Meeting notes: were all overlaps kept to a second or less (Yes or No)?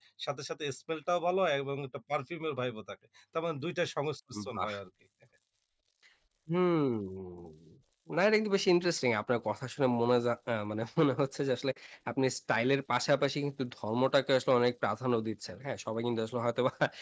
Yes